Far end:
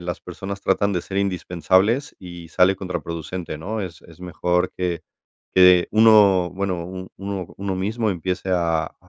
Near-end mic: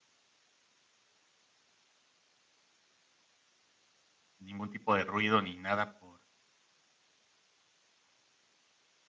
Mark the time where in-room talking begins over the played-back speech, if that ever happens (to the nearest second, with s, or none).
4 s